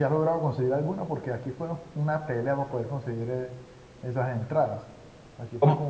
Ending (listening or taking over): listening